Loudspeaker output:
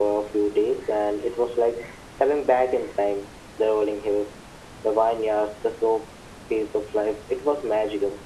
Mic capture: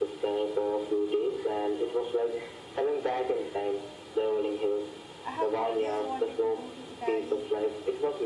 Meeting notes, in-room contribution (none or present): present